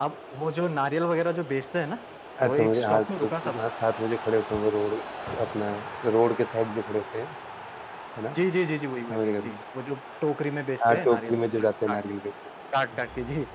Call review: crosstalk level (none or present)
present